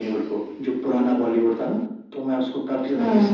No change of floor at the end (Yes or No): No